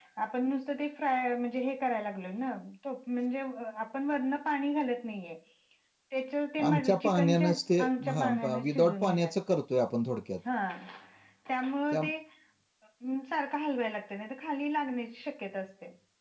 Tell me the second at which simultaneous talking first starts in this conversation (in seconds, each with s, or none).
6.6 s